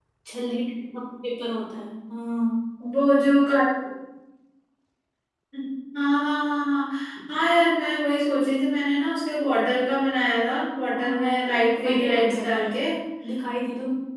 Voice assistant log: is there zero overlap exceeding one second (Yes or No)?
No